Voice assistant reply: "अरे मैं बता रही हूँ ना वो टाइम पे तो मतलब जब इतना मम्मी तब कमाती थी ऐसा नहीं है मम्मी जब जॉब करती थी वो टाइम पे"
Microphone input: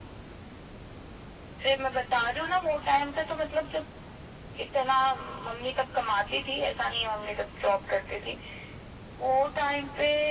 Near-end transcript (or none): none